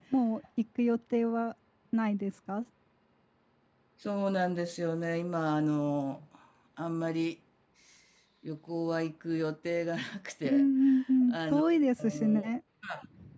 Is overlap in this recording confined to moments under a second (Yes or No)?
Yes